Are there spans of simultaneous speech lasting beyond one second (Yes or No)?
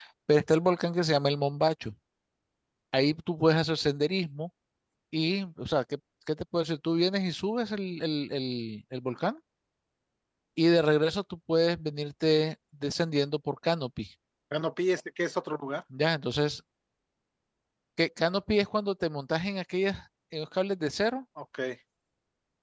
No